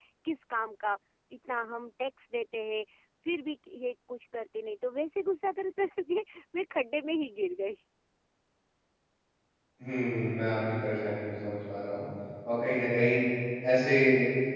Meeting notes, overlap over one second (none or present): none